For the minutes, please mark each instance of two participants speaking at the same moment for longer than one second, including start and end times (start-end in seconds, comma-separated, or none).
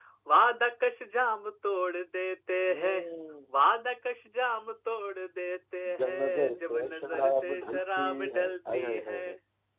6.0-9.2